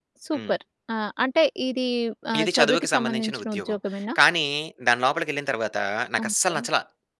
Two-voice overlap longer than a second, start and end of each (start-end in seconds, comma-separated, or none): 2.4-3.8